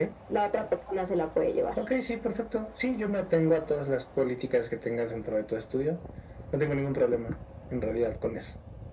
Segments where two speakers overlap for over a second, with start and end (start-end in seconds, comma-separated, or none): none